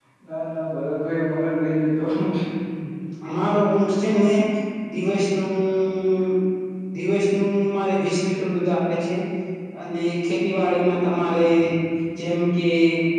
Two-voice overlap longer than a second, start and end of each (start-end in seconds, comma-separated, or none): none